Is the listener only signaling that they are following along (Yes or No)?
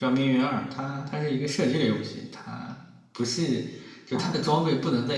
Yes